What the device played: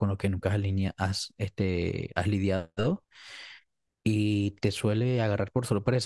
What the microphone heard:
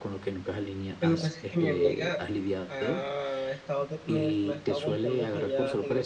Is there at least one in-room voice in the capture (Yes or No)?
Yes